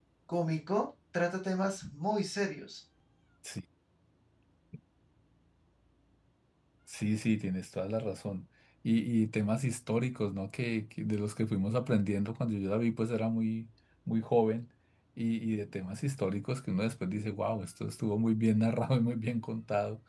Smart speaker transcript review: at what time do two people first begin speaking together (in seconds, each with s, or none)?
none